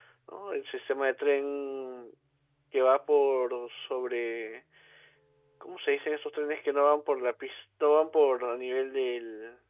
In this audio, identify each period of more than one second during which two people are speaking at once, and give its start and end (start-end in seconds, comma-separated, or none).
none